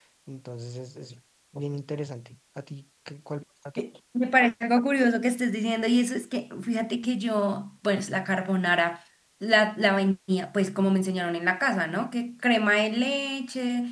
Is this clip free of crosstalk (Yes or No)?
Yes